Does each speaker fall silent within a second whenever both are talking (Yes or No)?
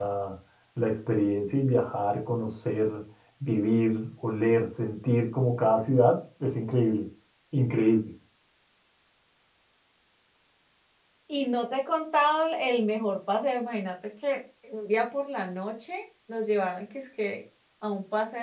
Yes